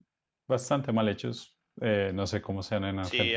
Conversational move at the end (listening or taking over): taking over